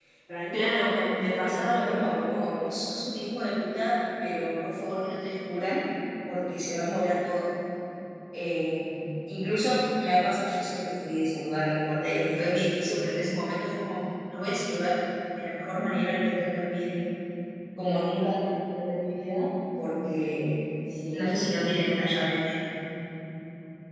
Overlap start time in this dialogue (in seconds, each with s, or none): 0.5 s